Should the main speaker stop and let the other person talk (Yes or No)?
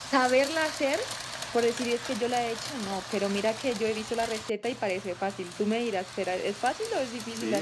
Yes